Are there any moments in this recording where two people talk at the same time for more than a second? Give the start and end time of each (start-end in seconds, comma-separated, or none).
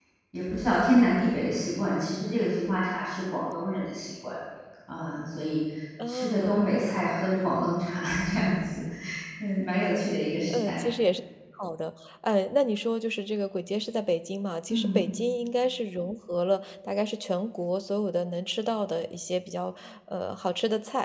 none